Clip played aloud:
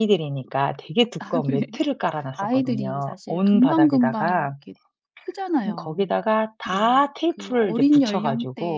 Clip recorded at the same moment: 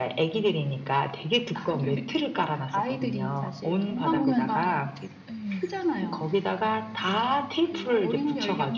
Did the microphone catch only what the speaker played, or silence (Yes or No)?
No